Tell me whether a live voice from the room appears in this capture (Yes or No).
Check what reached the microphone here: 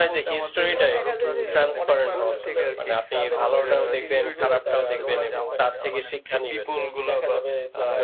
Yes